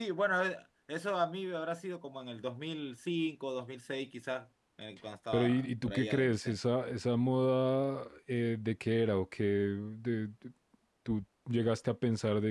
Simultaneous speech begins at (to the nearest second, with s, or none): 5 s